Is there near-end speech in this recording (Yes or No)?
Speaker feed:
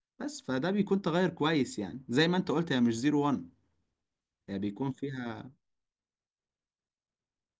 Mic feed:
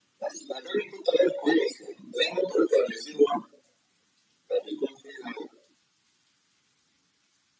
No